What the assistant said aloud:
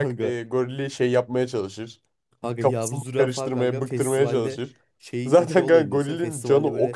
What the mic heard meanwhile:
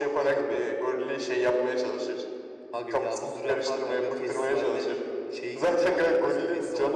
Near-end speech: none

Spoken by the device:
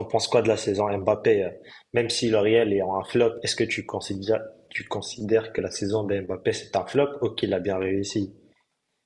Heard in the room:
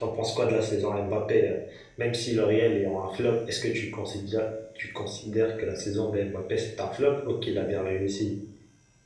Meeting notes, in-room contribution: none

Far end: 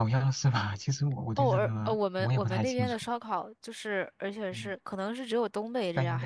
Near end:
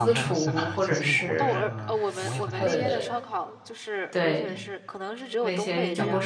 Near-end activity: present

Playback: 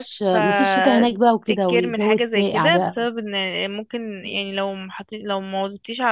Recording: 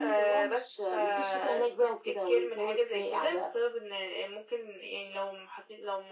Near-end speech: none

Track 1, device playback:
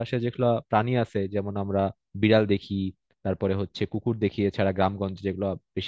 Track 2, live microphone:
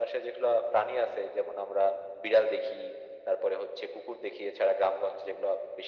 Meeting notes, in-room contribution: none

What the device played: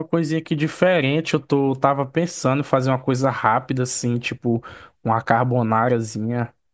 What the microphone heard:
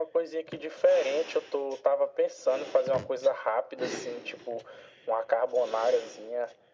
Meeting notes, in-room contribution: none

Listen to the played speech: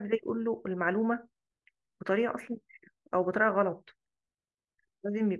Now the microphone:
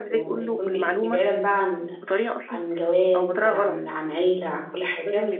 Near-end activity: present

